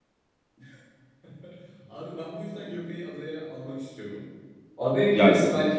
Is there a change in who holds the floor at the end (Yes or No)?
No